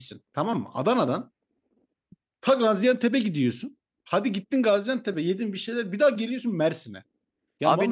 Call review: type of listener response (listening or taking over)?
taking over